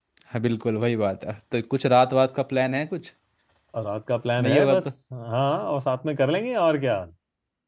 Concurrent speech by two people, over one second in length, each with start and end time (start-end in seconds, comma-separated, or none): none